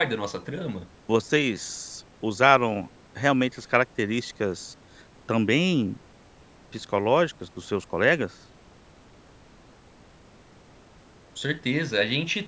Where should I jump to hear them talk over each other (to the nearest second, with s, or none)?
none